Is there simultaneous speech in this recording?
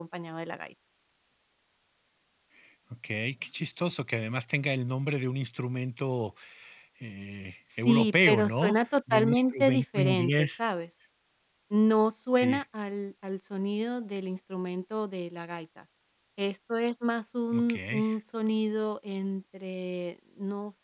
Yes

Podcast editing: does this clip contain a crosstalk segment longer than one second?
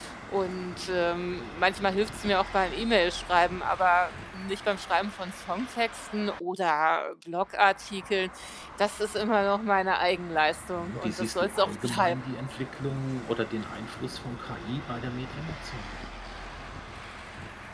Yes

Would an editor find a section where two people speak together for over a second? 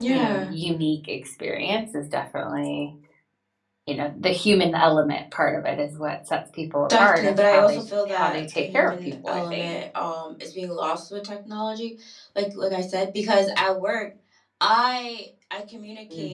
Yes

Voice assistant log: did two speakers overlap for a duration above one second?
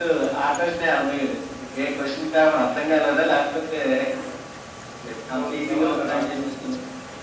Yes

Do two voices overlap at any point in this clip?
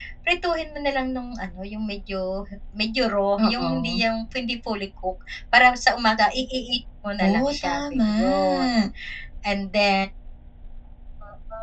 Yes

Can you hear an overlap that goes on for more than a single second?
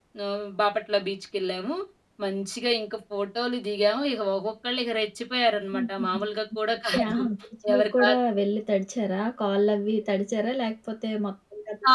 No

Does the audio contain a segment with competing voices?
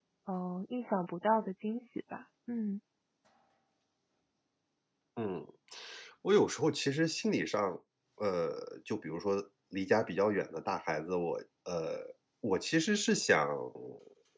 No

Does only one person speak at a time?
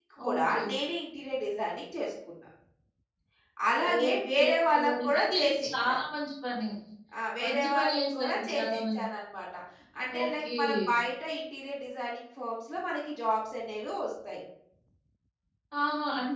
No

